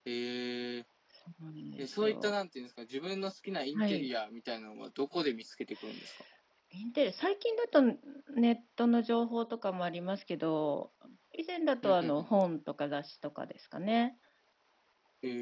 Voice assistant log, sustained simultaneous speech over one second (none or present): none